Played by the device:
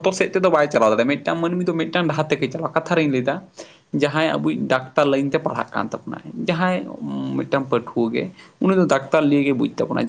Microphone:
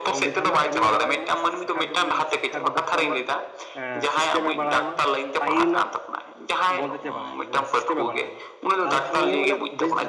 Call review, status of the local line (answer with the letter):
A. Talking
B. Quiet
A